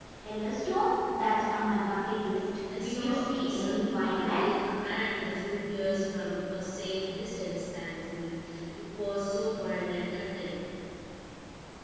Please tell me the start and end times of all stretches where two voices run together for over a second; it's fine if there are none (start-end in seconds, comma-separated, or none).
2.8-4.5